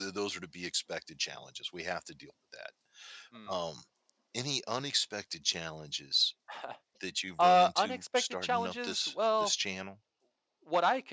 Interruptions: present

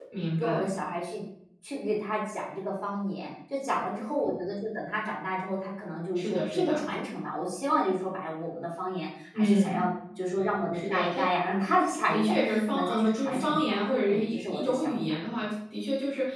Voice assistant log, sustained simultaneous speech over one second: present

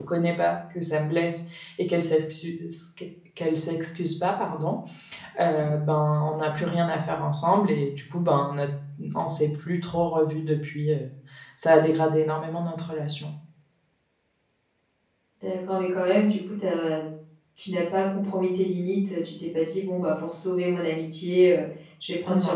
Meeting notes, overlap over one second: none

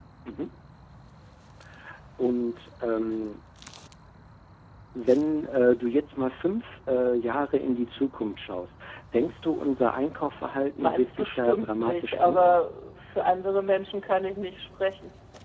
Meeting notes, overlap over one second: present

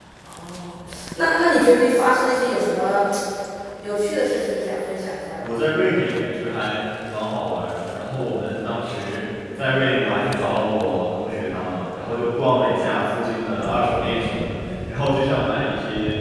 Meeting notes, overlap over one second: none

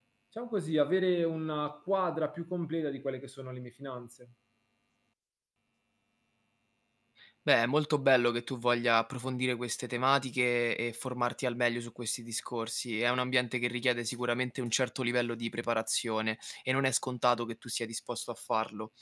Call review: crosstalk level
none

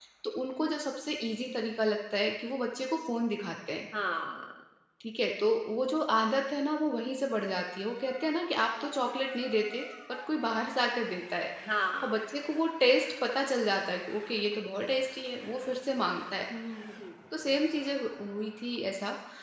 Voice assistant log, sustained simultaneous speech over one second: none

